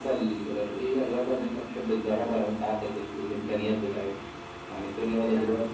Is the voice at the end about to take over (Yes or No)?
No